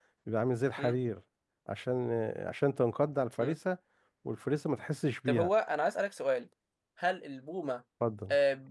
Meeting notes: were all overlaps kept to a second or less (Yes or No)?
Yes